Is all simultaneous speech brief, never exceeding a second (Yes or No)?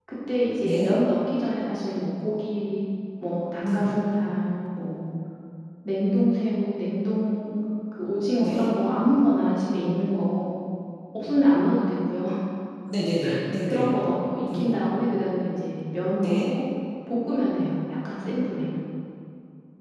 Yes